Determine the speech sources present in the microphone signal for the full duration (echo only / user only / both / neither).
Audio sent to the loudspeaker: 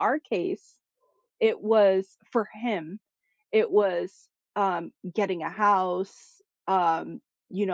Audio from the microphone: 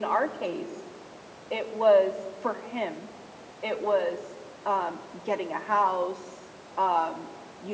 echo only